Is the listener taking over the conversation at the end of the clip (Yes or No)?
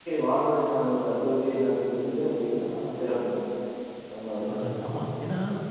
Yes